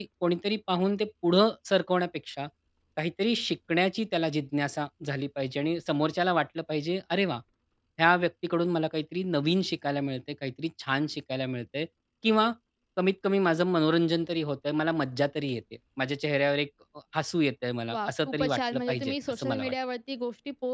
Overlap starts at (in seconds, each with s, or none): 17.9 s